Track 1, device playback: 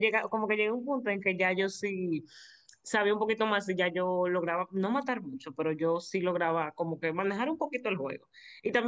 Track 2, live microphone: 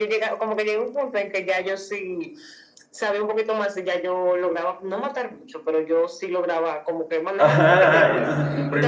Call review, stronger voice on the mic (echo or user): user